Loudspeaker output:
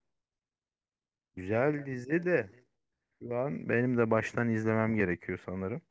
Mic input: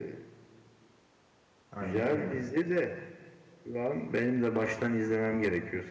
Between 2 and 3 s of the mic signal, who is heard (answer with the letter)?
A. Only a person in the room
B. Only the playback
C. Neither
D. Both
D